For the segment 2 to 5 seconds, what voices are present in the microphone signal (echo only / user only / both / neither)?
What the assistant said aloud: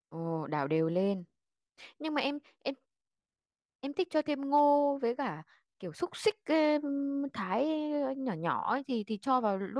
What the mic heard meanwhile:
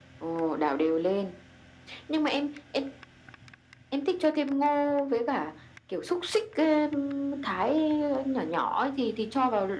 echo only